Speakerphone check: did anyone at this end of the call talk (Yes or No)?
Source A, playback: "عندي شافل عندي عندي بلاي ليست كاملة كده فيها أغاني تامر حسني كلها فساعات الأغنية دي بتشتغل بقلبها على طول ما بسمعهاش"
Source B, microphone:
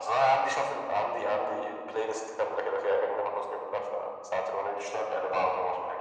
No